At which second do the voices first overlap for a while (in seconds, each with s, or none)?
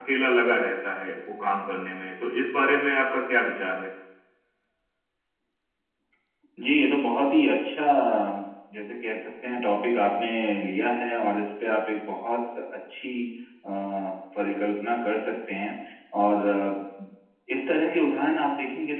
none